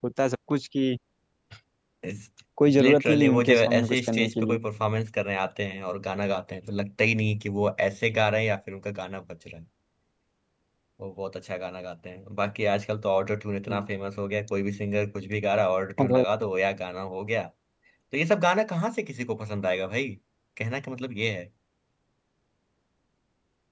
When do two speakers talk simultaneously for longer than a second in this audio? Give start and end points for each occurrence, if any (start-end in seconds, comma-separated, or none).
2.8-4.6